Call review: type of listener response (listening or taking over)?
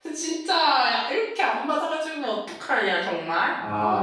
taking over